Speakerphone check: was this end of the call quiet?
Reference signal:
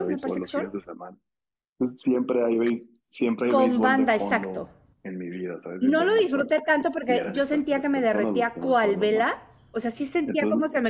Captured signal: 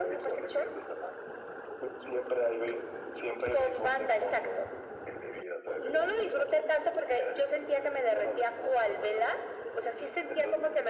Yes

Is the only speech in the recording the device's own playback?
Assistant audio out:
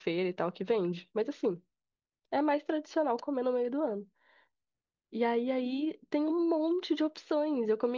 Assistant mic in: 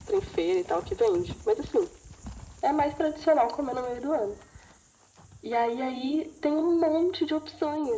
Yes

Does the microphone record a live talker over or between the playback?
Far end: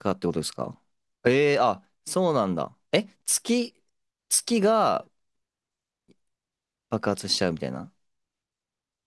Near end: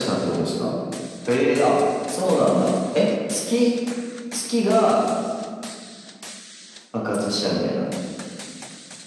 No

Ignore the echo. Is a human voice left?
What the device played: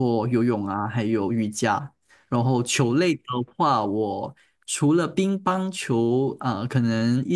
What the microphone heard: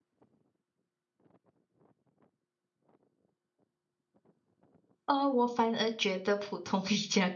Yes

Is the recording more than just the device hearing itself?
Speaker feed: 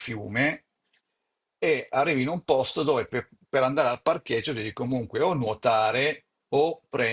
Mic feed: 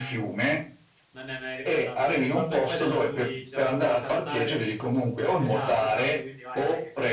Yes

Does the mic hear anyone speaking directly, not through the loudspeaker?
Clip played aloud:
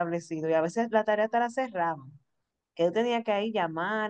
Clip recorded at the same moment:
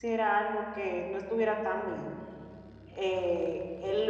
Yes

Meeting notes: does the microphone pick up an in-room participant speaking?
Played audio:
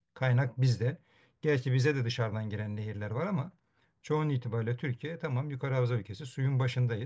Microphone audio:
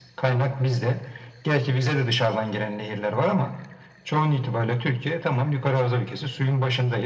No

